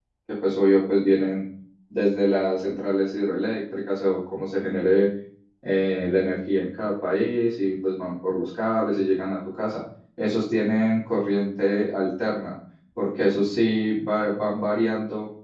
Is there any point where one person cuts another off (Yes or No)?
No